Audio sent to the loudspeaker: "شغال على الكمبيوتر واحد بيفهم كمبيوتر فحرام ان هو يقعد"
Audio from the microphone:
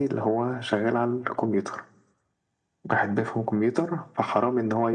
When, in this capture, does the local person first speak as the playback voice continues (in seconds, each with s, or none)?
none